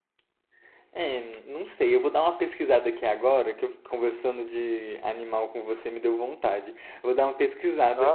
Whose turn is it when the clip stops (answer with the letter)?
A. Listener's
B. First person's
B